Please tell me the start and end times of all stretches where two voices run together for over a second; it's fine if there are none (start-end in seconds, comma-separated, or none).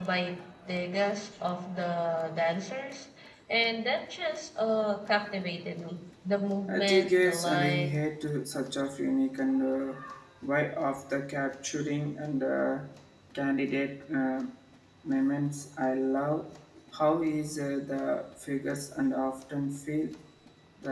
6.7-7.9